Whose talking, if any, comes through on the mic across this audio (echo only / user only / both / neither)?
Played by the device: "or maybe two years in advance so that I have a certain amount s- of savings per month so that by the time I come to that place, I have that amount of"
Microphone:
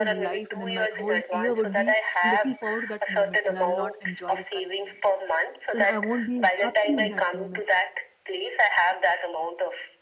both